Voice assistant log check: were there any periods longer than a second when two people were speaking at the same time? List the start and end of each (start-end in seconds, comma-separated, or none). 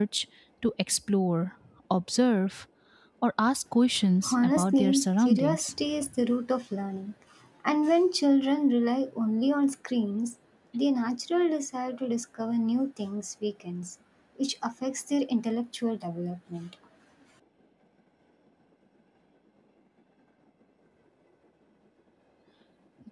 4.3-5.7